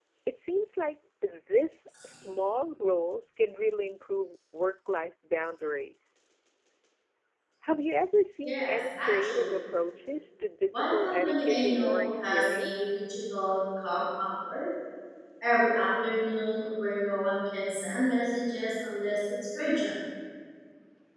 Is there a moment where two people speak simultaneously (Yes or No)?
Yes